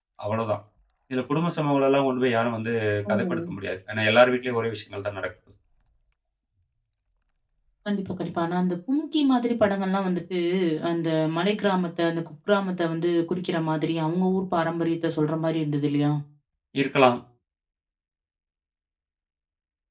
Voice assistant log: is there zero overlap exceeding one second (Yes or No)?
Yes